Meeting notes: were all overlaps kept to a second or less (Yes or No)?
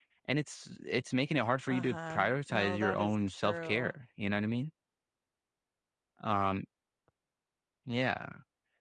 No